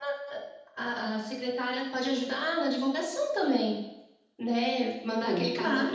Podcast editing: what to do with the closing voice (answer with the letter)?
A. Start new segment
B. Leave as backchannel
B